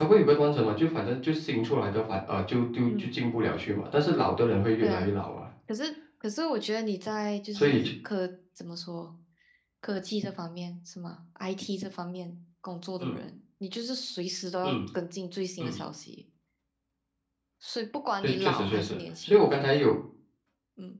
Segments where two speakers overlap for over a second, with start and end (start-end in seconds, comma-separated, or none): 18.2-19.5